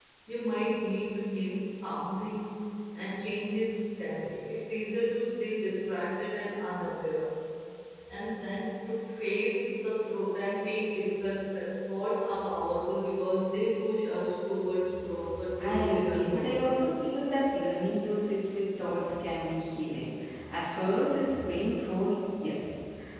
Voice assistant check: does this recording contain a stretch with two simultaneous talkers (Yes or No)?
Yes